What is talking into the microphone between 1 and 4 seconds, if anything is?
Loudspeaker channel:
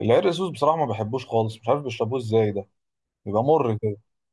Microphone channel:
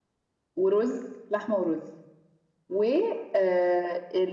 user only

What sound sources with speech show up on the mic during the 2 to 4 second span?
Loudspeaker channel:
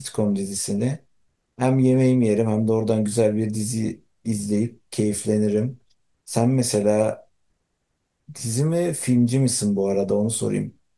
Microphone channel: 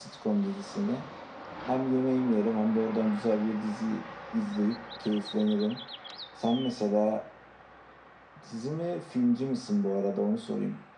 echo only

